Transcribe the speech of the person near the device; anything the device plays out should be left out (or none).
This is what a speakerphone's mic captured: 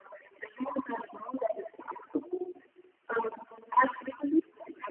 none